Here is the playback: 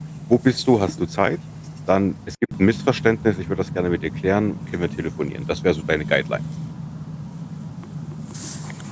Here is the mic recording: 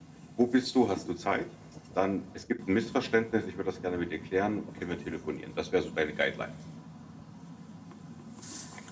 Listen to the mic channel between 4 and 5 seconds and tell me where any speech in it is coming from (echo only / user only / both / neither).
echo only